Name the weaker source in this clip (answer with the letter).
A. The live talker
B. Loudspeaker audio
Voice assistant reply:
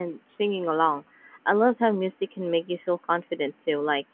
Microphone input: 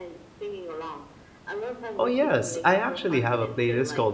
B